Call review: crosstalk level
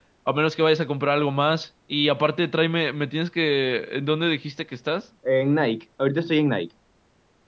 none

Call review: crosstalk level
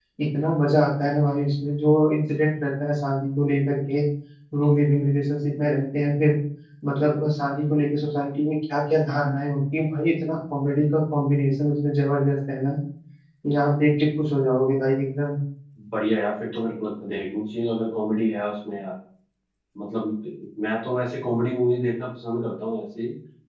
none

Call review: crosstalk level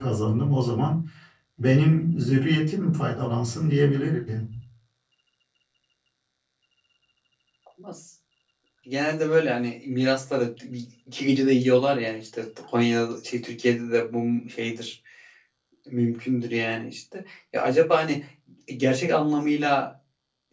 none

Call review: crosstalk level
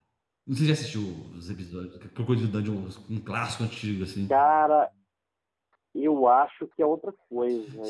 none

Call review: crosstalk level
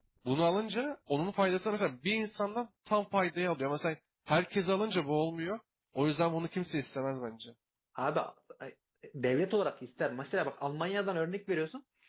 none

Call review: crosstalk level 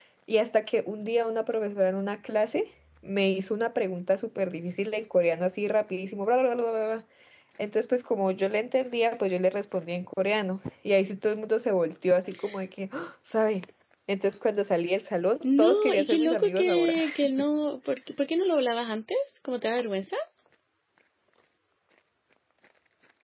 present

